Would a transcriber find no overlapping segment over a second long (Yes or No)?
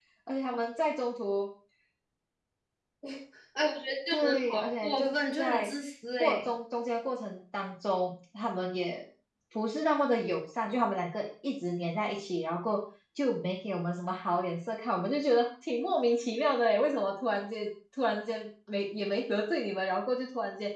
No